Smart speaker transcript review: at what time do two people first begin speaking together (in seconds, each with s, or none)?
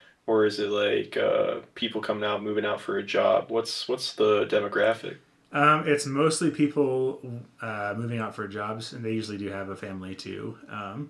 none